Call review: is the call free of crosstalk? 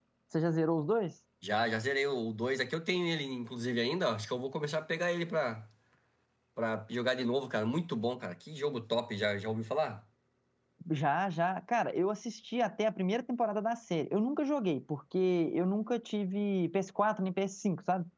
Yes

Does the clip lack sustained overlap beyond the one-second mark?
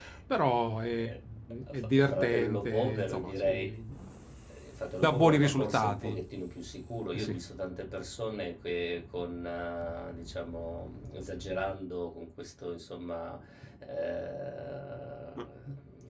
No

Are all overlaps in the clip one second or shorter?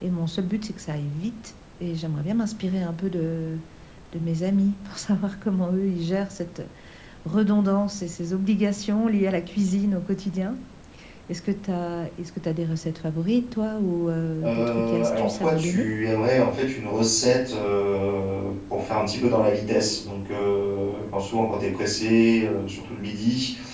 No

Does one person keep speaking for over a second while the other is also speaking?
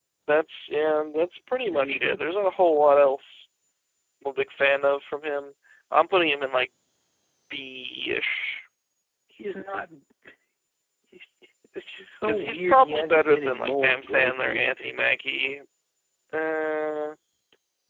Yes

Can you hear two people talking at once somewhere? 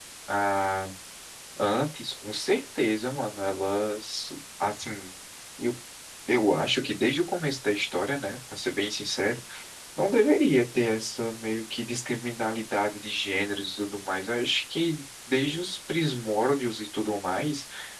No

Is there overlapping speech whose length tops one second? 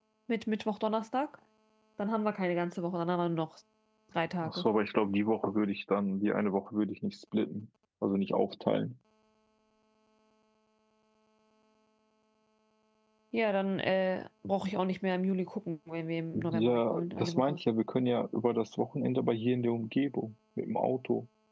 Yes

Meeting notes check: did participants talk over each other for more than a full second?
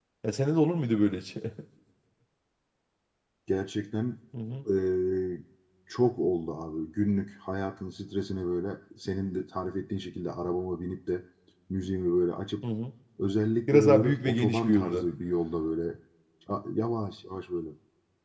Yes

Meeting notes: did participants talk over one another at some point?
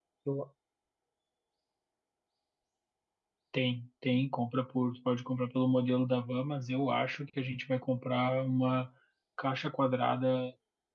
No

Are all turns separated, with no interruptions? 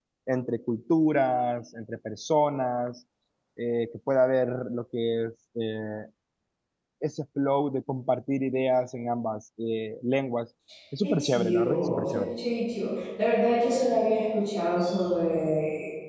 No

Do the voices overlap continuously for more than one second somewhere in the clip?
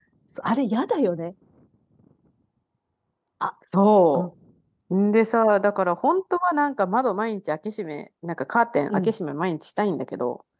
No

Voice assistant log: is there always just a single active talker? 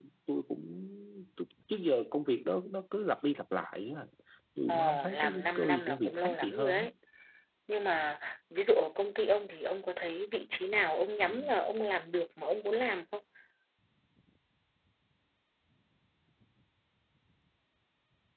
No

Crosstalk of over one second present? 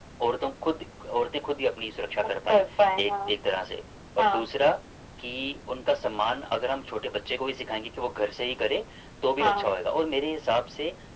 No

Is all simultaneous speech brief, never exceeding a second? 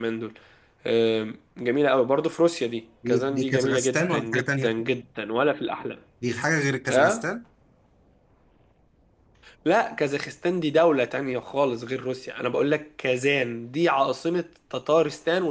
No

